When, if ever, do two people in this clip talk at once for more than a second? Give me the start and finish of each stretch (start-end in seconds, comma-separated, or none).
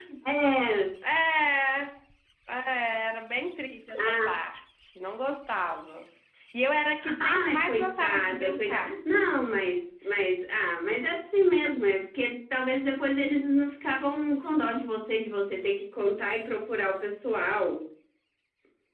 7.0-8.9